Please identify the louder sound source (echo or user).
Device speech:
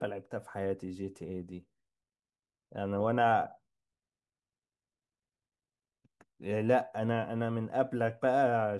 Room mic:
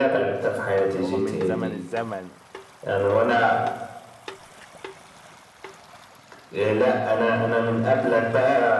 echo